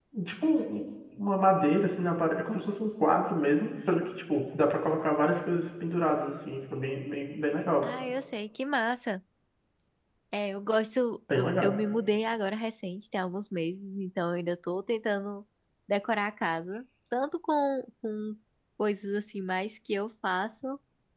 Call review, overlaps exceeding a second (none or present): none